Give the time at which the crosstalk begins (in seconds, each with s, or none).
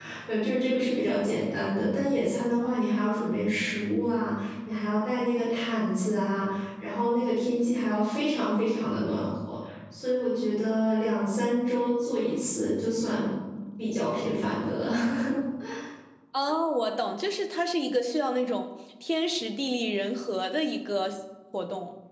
none